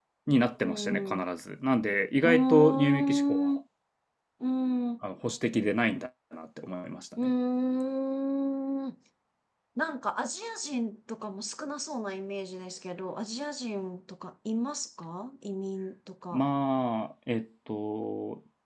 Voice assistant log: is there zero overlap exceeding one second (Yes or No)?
No